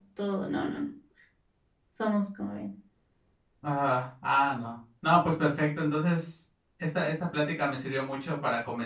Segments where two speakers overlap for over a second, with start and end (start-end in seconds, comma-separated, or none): none